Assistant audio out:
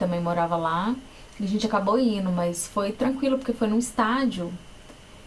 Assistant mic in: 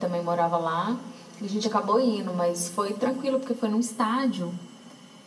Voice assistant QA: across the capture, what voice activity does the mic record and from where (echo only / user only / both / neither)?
echo only